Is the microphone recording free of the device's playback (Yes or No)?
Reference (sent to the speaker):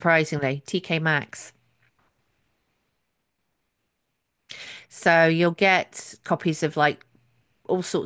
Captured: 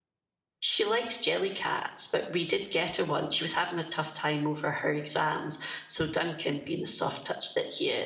Yes